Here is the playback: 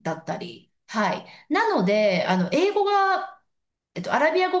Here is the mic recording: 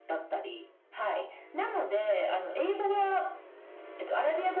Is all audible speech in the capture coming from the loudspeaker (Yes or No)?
Yes